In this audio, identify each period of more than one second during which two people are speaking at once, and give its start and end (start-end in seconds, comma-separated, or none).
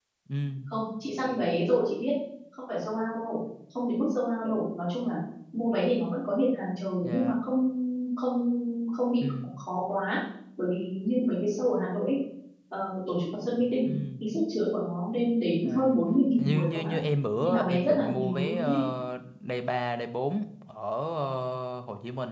17.4-18.8